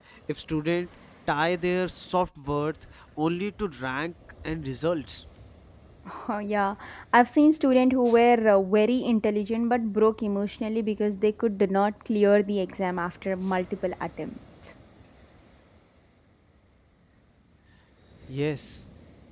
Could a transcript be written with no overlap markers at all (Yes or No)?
Yes